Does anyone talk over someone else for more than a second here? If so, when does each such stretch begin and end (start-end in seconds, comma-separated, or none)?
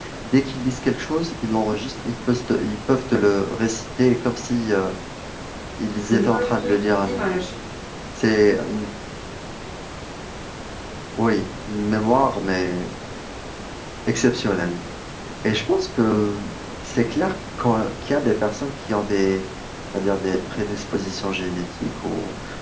6.1-7.4